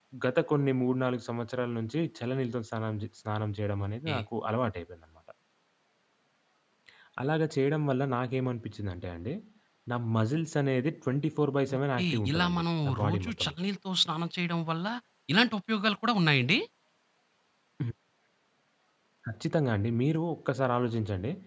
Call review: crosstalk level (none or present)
present